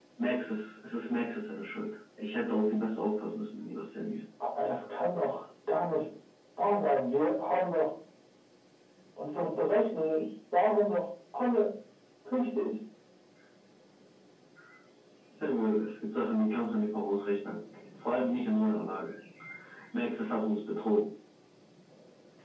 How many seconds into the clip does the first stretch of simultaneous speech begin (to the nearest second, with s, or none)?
none